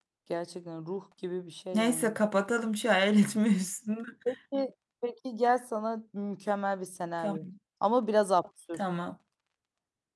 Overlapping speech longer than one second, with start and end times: none

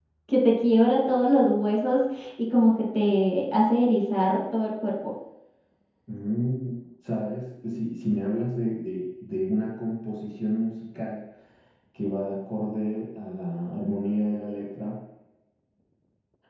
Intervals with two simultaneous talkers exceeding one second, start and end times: none

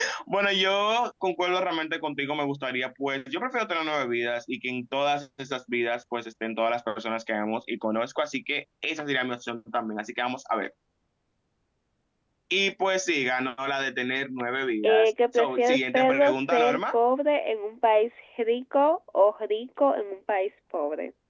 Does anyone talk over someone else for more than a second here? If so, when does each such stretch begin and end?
14.8-16.8

